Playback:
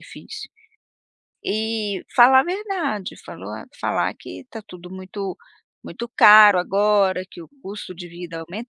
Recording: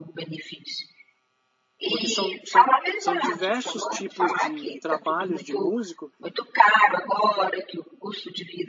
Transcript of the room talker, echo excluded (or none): porque são são são diversos tipos de trabalhos de músico,